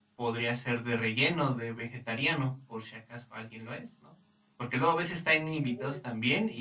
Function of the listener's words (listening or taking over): listening